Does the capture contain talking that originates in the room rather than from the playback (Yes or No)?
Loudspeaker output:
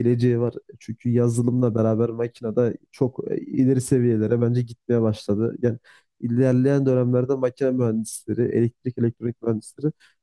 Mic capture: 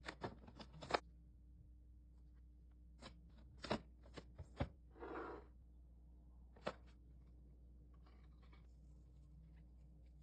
No